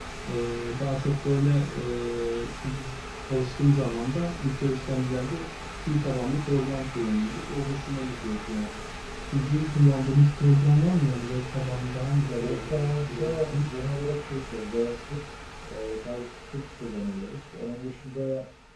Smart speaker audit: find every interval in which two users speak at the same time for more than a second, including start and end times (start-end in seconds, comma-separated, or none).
12.4-13.6